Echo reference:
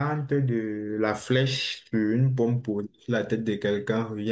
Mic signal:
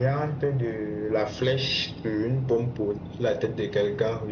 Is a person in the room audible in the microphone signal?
No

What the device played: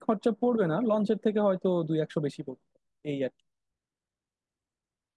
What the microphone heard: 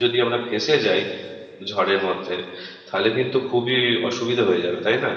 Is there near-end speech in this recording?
Yes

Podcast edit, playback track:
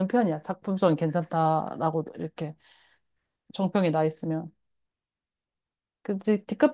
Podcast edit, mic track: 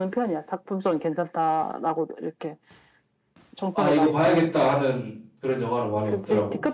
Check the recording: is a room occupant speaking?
Yes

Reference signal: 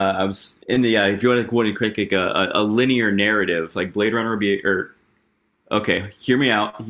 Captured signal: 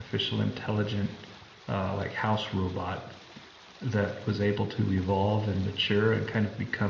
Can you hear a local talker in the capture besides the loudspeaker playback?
Yes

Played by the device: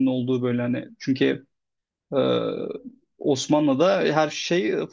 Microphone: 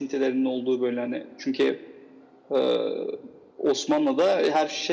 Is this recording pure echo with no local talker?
Yes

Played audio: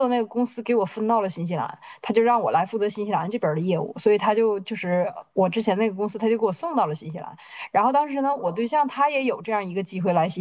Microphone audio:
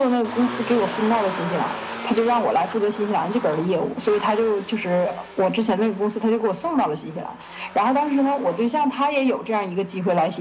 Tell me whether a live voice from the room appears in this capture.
No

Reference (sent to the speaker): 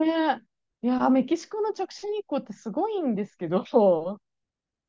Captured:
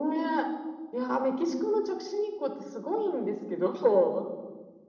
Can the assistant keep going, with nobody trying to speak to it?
Yes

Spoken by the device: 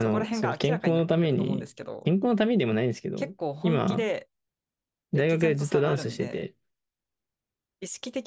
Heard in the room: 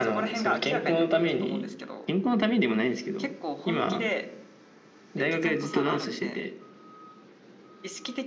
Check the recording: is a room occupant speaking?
No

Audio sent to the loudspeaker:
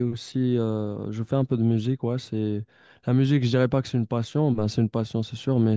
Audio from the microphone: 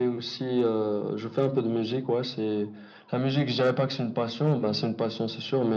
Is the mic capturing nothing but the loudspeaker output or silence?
Yes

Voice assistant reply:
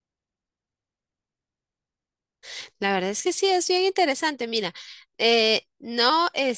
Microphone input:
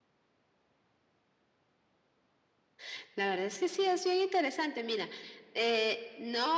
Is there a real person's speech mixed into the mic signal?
No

